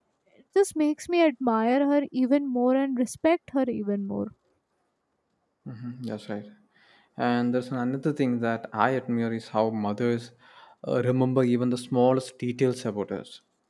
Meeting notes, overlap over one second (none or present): none